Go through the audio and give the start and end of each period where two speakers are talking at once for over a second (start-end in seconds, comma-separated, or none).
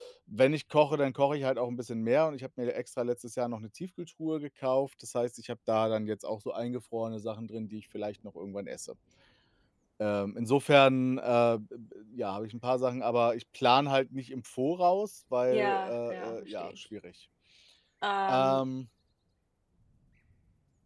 15.5-16.7